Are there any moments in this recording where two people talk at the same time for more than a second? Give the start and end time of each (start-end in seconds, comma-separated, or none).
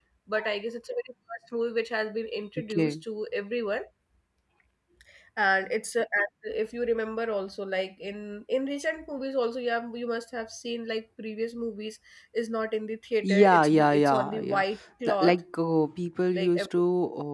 13.2-14.6